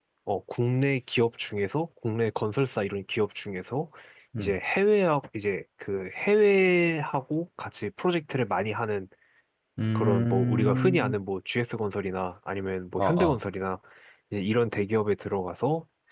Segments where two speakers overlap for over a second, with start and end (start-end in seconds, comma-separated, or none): 10.0-11.2